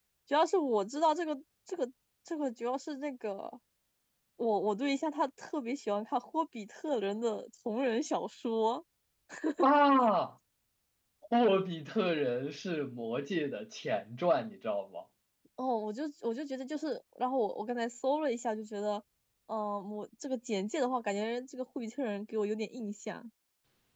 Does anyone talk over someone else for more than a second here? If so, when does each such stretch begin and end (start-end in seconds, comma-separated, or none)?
none